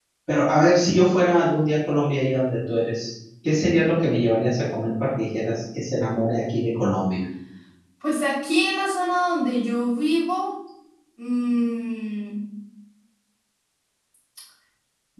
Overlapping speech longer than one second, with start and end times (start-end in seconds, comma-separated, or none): none